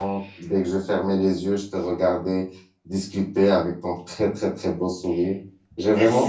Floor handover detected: Yes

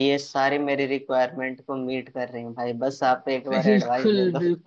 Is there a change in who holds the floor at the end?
Yes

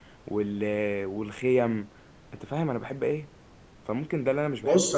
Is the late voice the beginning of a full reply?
Yes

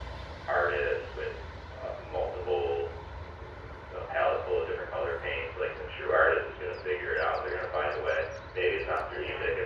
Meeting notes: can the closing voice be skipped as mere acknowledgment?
Yes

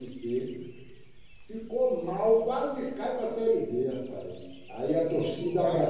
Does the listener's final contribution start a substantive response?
No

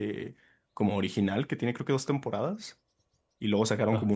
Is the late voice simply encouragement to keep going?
Yes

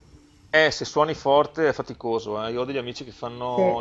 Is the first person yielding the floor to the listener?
No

